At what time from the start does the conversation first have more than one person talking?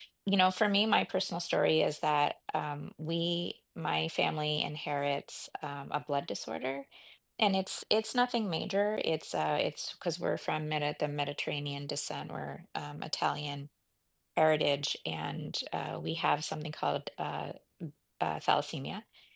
none

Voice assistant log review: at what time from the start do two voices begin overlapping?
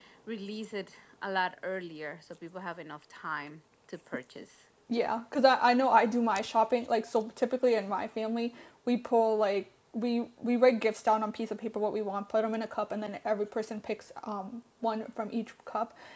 none

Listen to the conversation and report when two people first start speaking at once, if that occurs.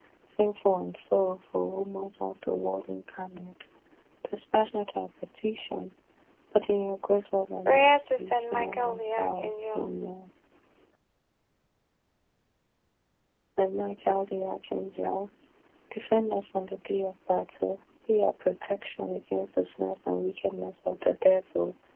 7.7 s

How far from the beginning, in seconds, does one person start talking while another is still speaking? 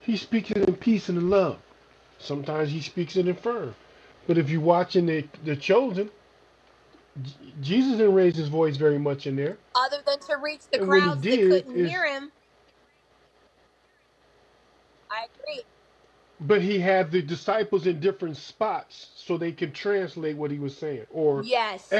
10.8 s

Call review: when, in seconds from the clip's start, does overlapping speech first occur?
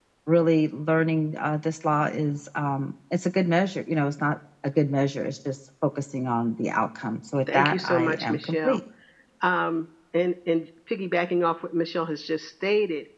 7.5 s

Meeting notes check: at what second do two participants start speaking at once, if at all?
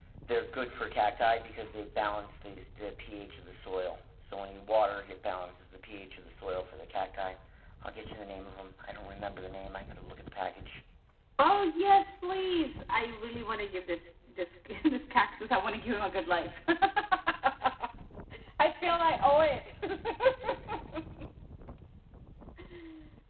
none

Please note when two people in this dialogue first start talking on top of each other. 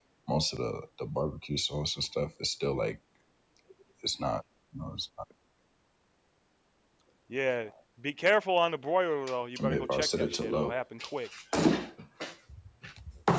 9.6 s

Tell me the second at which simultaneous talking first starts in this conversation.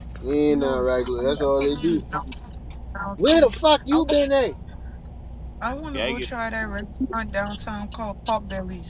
0.6 s

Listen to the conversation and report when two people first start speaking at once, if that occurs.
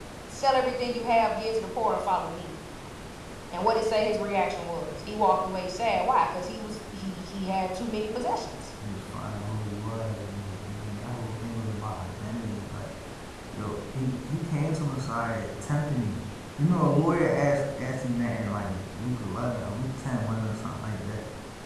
none

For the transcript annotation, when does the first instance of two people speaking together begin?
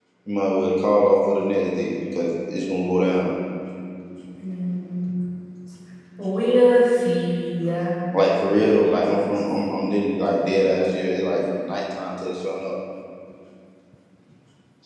none

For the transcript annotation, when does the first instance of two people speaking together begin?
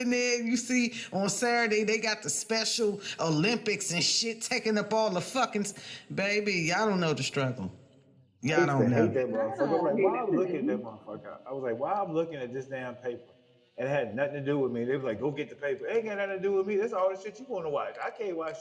8.4 s

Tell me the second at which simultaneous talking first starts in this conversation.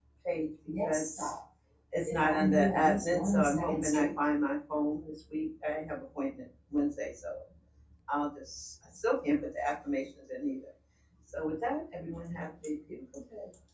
none

